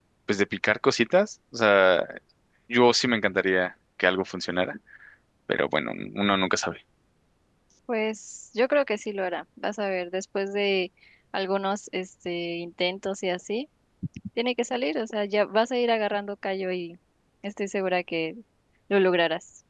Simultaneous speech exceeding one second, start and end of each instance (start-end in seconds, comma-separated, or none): none